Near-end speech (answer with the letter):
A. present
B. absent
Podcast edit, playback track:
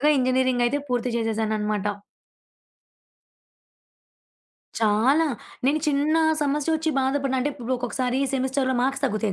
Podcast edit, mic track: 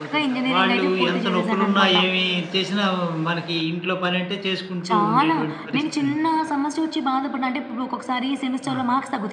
A